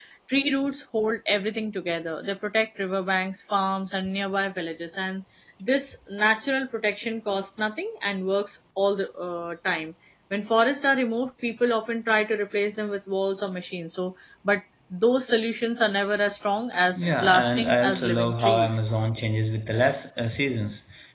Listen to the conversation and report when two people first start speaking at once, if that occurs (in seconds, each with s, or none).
17.0 s